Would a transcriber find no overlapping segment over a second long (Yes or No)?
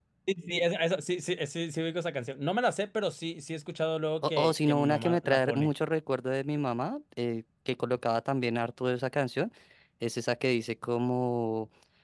No